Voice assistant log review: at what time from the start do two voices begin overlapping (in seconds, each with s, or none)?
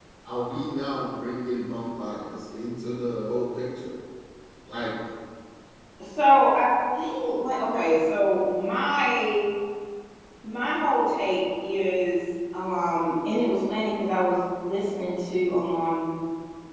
none